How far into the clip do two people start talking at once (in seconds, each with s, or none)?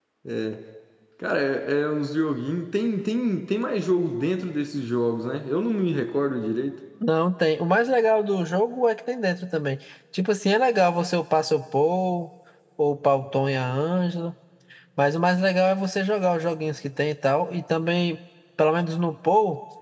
none